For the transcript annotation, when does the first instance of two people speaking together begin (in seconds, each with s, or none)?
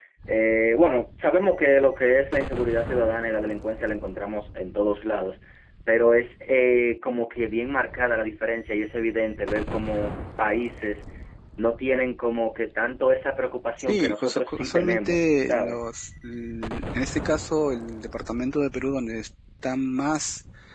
13.8 s